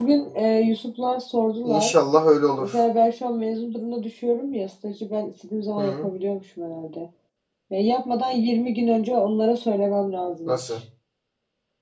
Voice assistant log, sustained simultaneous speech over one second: none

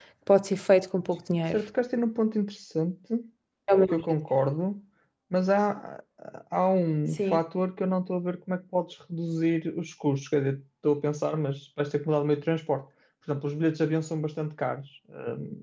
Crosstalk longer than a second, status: none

